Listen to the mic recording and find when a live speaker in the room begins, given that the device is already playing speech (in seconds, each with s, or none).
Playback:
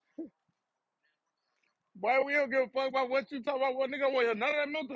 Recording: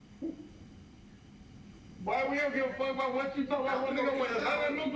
3.6 s